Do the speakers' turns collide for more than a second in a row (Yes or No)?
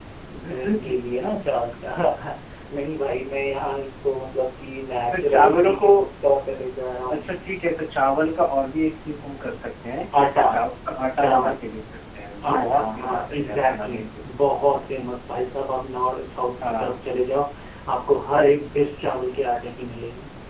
Yes